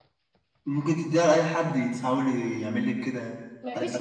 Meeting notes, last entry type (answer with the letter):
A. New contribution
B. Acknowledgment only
A